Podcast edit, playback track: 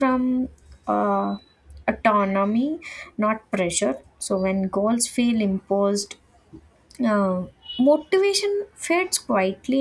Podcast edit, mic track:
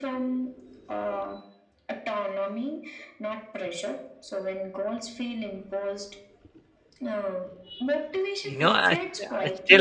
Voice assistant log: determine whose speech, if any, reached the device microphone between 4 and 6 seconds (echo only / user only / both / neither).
echo only